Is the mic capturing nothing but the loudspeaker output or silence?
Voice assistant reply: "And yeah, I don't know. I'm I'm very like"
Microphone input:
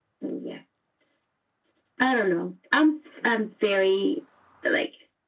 Yes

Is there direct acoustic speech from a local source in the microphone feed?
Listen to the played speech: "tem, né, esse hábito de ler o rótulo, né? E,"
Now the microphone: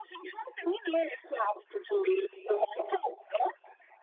No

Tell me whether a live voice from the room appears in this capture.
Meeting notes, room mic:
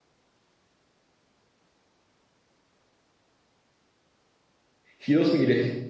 Yes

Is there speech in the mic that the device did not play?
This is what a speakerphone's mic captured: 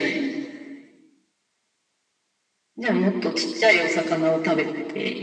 No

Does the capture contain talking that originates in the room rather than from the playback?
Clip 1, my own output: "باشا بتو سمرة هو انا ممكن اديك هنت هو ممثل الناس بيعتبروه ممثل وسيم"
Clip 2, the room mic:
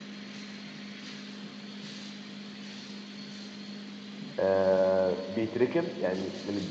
Yes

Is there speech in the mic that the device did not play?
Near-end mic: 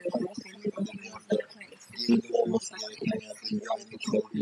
No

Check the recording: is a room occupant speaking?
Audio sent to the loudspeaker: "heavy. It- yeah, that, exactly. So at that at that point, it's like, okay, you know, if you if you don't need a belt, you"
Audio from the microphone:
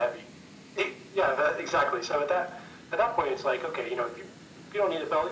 No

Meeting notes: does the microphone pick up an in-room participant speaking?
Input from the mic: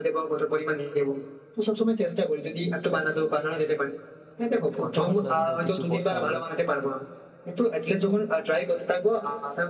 Yes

